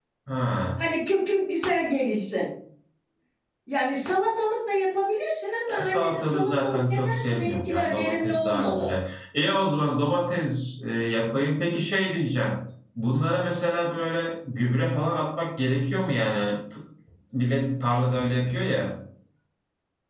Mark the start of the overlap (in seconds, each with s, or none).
5.7 s